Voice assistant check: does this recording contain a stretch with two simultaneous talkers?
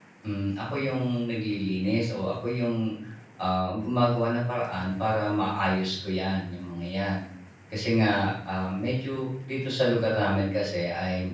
No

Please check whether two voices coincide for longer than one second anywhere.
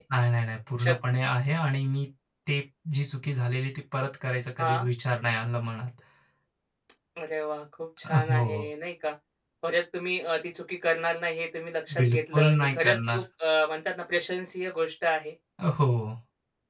Yes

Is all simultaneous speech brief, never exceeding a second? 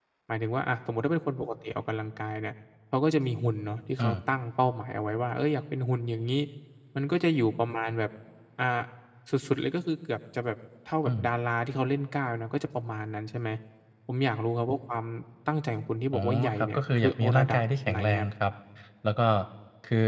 No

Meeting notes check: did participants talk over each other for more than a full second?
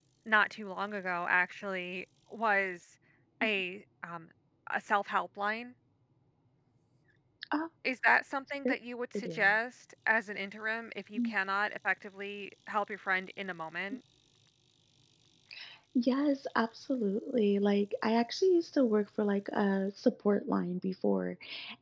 No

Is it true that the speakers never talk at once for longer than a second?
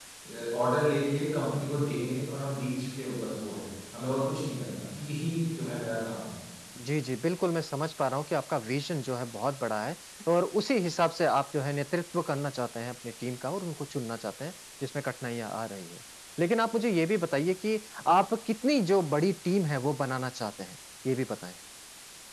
Yes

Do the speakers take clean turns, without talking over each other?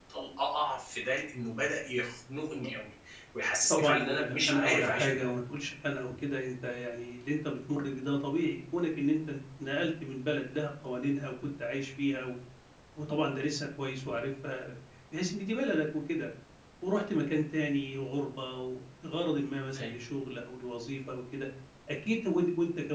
No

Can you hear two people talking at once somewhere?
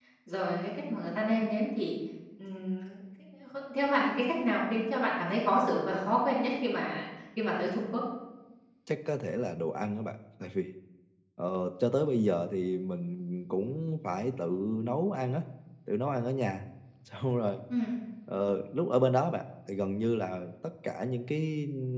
No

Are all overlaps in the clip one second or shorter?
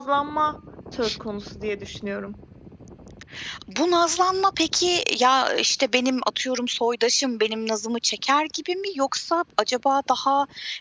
Yes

